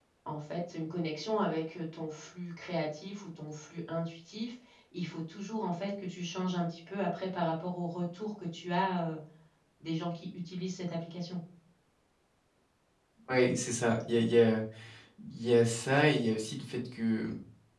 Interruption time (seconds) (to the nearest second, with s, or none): none